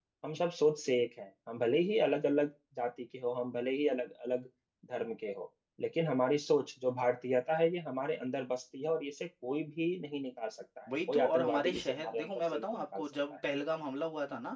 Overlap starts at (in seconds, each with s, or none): 10.9 s